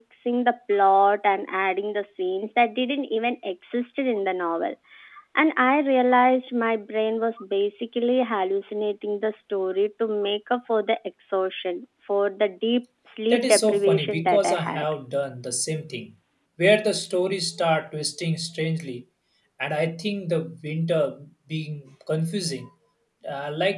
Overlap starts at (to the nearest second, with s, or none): 13 s